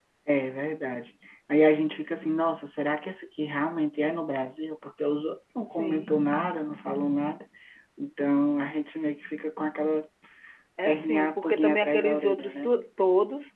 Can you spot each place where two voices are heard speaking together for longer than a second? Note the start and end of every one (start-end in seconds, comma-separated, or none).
10.8-12.7